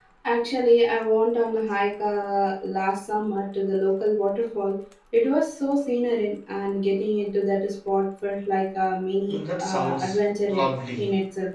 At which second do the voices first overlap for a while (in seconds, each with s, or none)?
9.3 s